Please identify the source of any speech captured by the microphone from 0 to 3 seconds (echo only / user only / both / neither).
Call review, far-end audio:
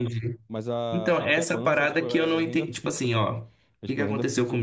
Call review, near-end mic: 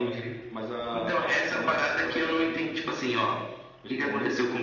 echo only